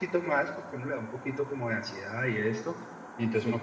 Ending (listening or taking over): listening